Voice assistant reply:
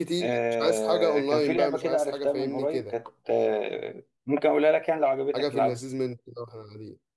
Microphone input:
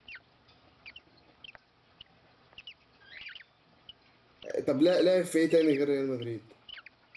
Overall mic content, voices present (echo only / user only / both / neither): user only